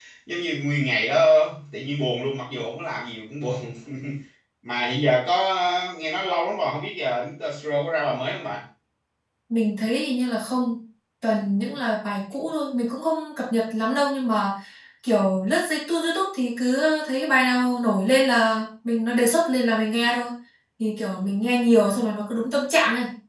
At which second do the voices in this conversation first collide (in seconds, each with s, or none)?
none